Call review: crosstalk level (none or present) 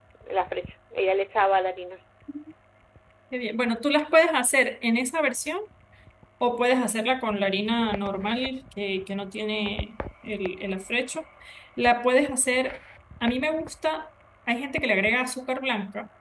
none